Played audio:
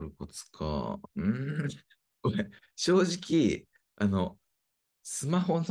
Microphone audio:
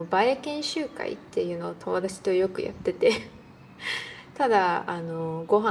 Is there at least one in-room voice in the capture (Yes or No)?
Yes